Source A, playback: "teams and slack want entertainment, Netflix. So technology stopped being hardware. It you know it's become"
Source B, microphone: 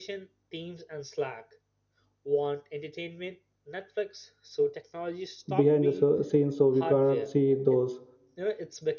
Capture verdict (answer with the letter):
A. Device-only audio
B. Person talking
B